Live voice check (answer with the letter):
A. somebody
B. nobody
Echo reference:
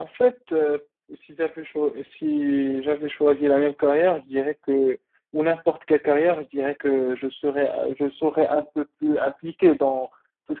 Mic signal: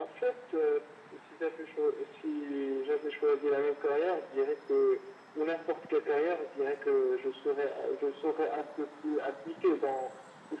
B